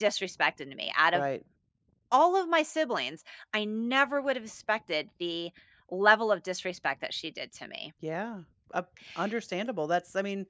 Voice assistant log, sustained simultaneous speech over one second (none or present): none